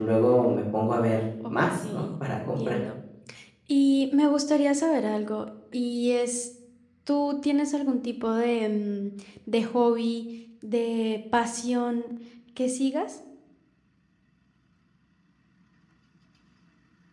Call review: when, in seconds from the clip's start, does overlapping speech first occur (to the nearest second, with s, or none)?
1 s